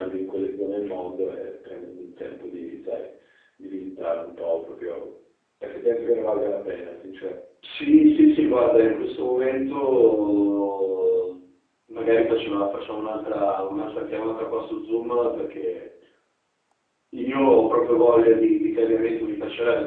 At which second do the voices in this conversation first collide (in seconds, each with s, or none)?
none